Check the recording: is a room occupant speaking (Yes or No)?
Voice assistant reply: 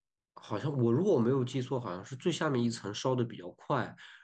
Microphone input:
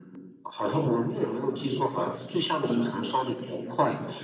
No